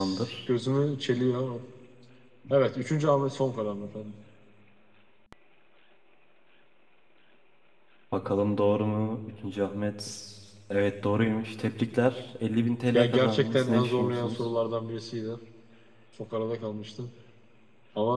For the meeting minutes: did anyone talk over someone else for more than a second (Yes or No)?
Yes